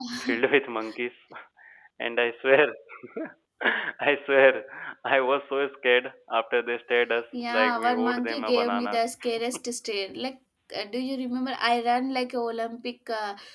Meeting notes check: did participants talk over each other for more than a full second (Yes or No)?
Yes